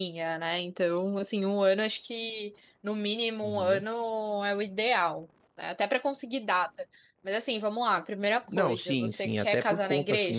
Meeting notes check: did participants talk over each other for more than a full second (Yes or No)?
Yes